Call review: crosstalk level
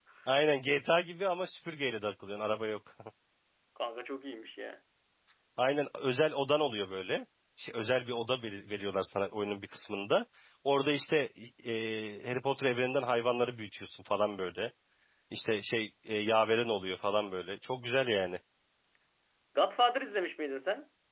none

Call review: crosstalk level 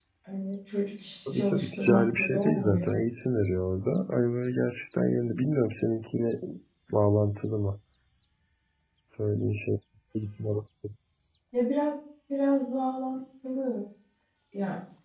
present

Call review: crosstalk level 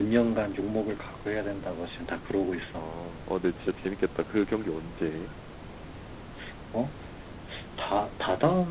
none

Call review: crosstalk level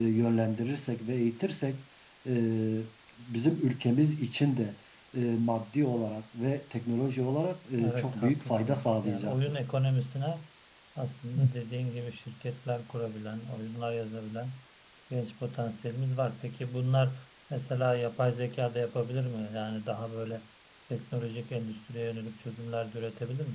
present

